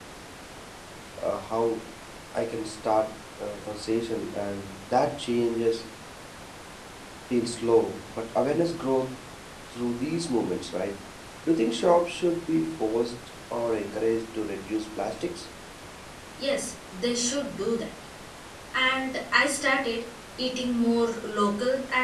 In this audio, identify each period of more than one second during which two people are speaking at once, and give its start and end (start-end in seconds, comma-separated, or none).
none